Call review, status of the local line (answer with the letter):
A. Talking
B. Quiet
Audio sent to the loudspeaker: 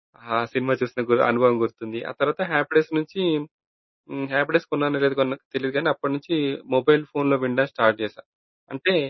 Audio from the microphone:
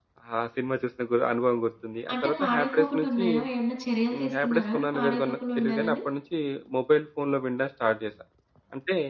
A